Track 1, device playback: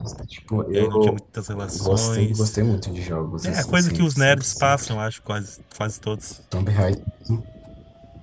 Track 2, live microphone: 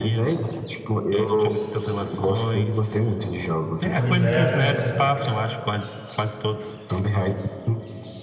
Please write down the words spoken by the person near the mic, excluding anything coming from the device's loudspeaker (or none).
Pois é.